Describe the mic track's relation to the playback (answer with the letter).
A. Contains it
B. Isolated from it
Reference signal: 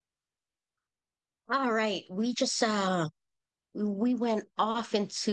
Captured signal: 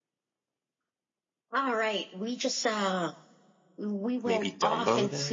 A